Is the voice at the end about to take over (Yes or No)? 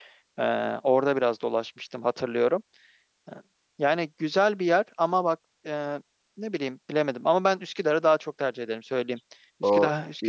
Yes